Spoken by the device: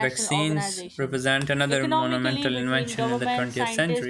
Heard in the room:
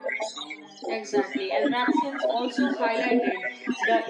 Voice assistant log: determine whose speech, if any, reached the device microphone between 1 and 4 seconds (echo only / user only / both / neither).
both